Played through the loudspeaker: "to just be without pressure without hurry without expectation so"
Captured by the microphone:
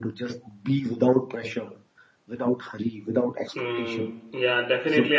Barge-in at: 3.5 s

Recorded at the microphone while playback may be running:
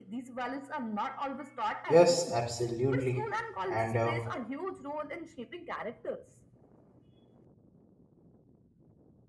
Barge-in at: 1.9 s

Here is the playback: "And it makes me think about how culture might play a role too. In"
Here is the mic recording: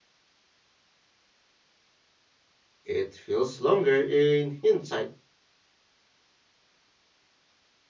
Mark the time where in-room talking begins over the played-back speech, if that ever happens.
2.8 s

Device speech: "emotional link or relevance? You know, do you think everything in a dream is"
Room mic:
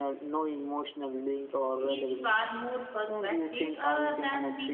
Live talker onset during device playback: 1.9 s

